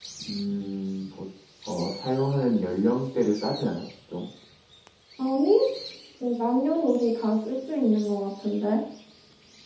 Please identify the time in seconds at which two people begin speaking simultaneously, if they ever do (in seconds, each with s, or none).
none